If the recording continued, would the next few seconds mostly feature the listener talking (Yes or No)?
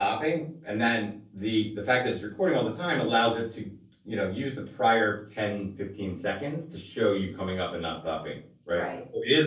No